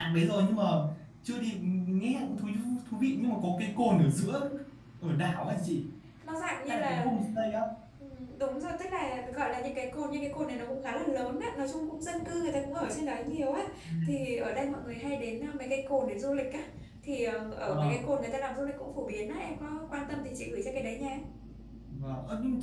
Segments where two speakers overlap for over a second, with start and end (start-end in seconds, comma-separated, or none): none